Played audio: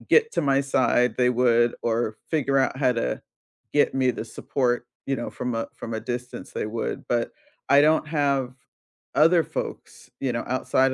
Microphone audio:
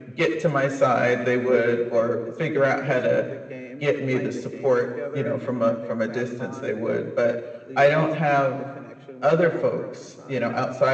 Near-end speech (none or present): present